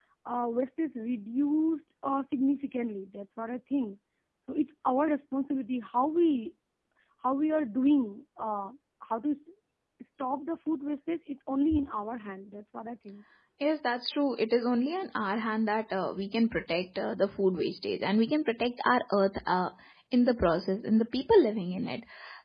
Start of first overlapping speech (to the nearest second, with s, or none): none